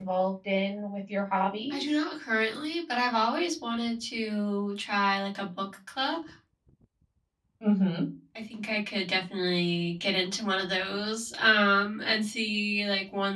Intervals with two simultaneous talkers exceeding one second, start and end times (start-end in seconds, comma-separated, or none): none